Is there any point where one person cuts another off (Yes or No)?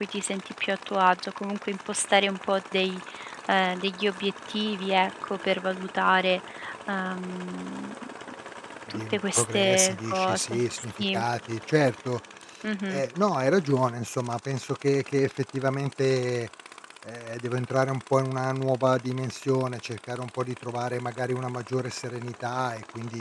Yes